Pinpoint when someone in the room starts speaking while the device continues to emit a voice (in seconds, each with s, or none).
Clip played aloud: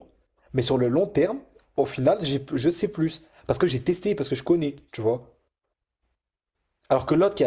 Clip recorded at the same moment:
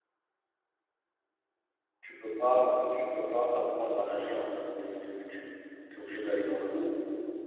2.0 s